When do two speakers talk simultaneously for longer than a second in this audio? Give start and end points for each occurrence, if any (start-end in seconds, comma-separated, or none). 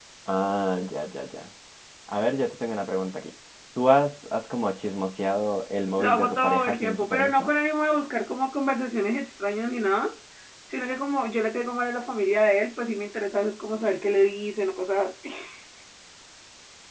6.0-7.5